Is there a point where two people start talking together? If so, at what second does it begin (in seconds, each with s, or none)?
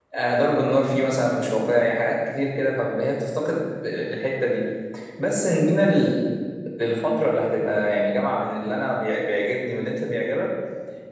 none